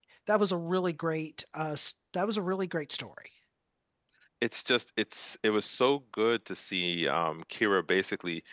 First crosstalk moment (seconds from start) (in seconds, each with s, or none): none